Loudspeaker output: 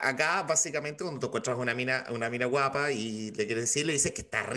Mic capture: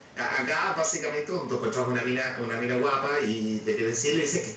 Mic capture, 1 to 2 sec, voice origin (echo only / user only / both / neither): echo only